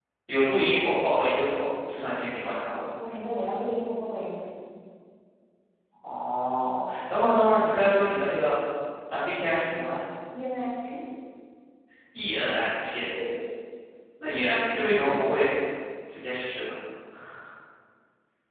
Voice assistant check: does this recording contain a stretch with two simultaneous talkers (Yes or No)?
No